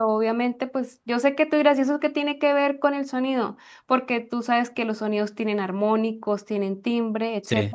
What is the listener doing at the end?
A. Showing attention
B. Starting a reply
B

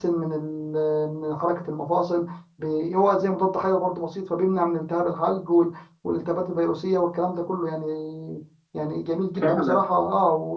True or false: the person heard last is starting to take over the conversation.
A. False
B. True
A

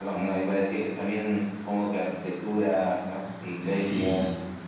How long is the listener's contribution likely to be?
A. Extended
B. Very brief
A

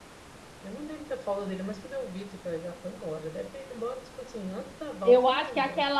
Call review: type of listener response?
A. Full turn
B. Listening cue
A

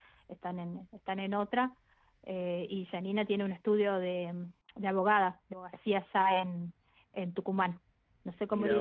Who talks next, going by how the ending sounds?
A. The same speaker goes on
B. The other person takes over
A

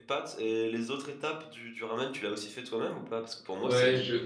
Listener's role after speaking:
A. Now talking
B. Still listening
B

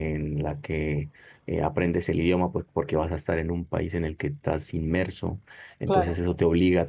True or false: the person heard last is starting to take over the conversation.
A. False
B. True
A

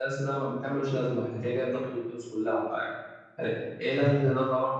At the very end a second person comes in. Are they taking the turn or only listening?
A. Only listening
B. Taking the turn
A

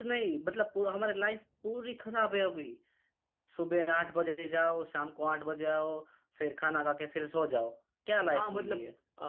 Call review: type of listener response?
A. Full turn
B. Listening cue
A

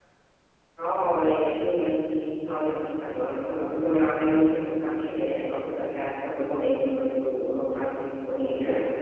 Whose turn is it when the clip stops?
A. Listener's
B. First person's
A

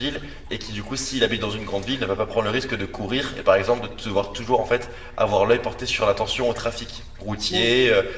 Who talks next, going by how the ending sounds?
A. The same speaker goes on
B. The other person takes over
A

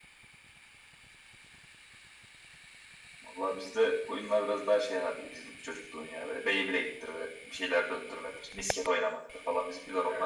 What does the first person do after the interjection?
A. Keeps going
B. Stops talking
B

